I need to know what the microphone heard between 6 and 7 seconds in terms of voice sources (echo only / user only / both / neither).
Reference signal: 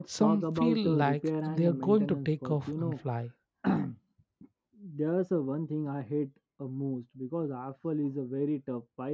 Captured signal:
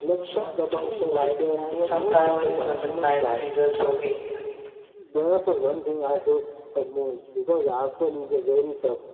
echo only